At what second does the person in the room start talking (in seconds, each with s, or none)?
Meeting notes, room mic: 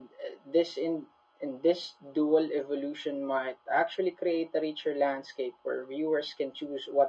none